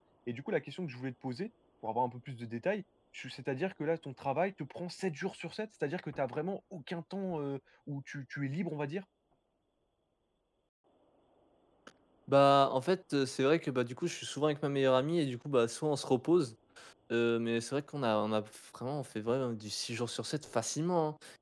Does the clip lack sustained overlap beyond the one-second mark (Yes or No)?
Yes